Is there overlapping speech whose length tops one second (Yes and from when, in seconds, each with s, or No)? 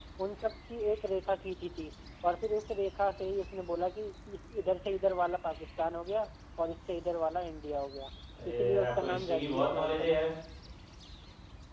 Yes, from 8.4 s